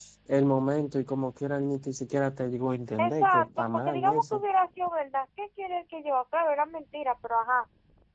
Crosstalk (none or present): present